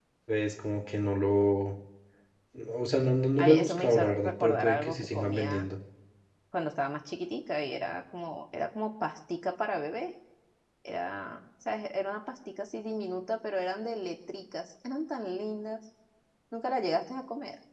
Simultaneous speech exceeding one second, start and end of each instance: 3.4-5.6

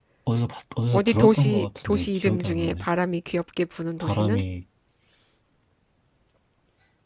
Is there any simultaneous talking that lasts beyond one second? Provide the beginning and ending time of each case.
0.9-2.9

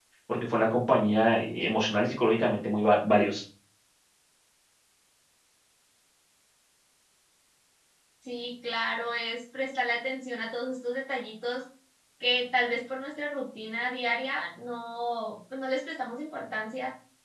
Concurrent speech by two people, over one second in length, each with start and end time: none

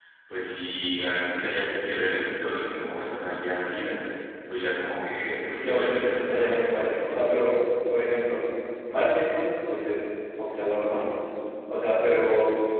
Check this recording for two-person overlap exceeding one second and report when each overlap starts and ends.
5.4-6.9

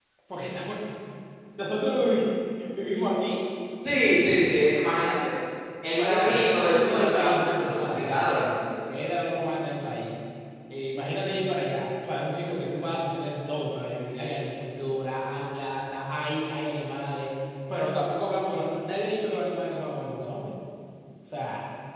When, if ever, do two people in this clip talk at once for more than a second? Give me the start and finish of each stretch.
5.9-8.6

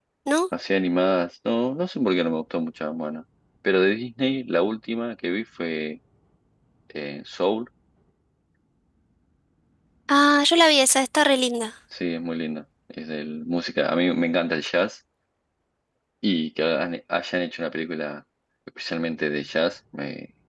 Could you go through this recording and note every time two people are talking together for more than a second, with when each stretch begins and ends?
none

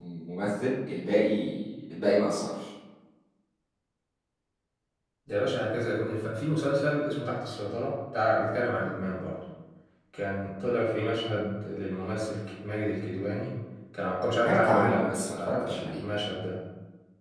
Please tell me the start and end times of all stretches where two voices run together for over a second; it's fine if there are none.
14.4-16.0

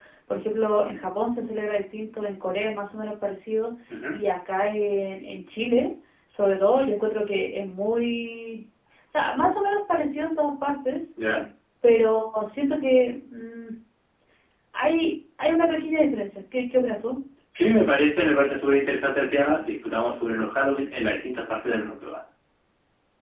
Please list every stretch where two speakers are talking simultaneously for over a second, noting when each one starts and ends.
none

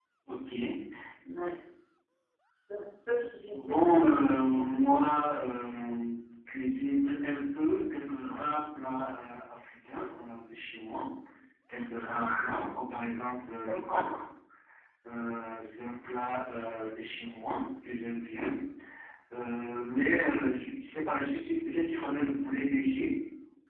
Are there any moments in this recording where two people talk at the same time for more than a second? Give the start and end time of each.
3.5-4.8

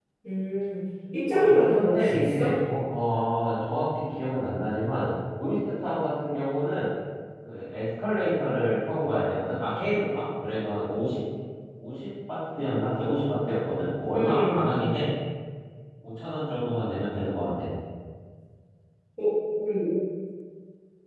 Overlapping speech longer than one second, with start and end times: 1.3-2.5

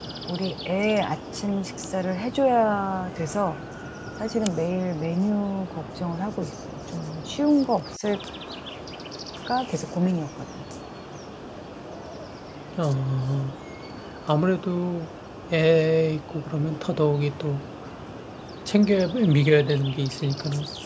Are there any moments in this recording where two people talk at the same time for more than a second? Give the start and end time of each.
none

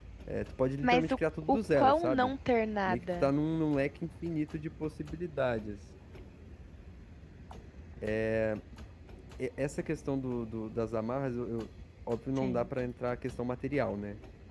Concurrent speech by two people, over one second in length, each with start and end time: 0.8-2.3

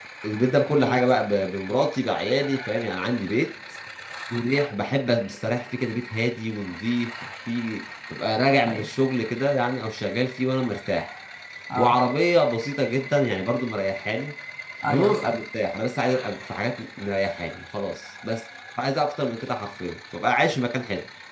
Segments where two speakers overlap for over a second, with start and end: none

